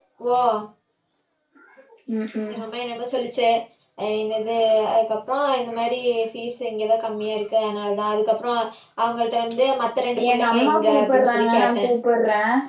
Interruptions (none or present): present